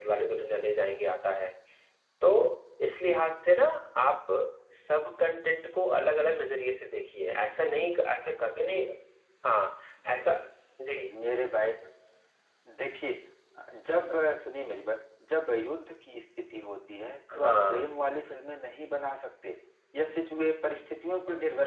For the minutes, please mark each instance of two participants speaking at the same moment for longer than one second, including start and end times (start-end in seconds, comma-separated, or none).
none